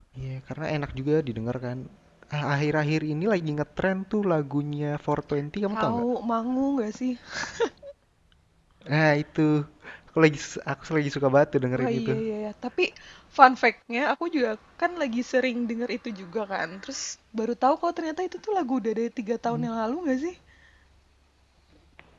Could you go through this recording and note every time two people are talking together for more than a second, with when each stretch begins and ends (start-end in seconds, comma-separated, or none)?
none